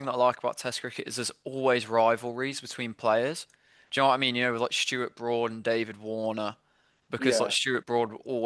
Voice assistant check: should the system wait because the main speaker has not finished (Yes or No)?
Yes